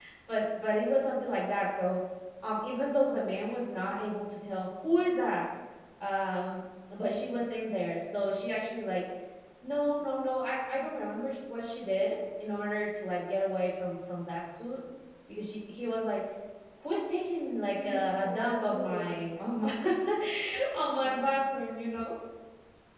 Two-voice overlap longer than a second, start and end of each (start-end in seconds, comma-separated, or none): 17.8-19.1